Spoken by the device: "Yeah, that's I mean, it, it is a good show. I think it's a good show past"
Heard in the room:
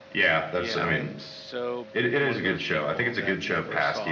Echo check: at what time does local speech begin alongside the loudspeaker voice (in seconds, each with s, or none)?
0.6 s